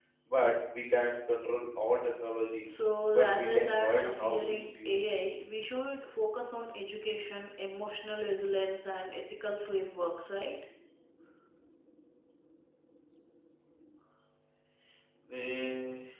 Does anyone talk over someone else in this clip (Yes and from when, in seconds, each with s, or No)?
Yes, from 3.1 s